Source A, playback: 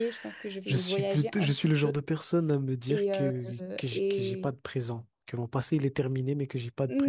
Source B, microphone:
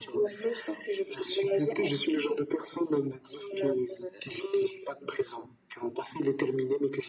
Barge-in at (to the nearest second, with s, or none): none